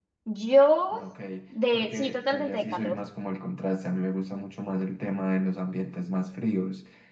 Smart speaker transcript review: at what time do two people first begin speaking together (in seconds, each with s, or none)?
1.7 s